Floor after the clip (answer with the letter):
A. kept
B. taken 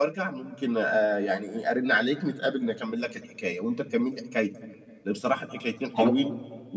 A